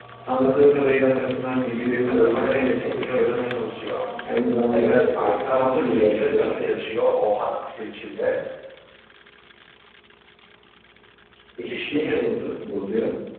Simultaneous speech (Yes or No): Yes